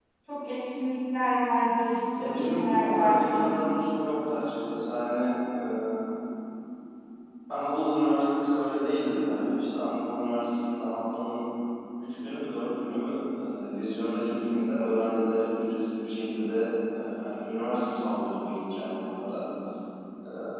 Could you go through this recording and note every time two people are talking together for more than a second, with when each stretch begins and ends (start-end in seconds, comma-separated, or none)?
2.2-3.5